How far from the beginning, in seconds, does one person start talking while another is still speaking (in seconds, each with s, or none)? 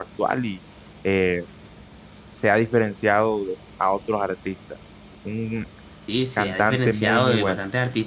6.4 s